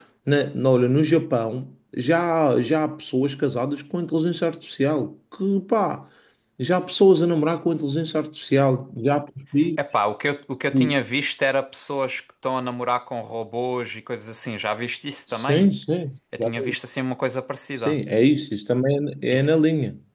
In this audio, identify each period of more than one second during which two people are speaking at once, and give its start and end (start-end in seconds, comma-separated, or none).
none